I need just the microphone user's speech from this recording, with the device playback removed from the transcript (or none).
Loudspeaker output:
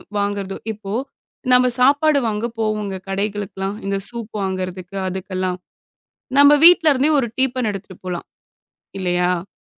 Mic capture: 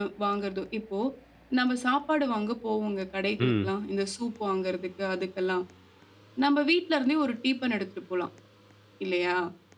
ம்.